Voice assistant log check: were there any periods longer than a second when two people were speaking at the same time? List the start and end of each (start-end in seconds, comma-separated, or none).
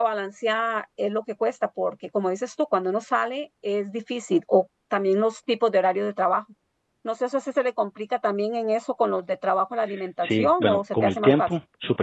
10.2-11.5